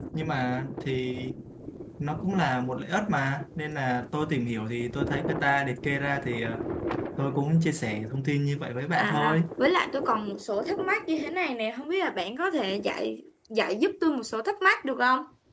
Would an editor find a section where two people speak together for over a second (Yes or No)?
No